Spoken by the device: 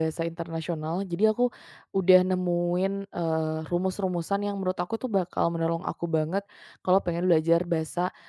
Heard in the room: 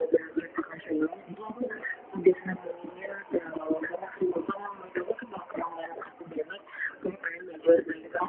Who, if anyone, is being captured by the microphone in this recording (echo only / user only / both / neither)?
echo only